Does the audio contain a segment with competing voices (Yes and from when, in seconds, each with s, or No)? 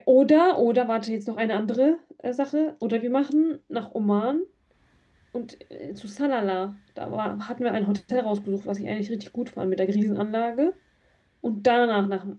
No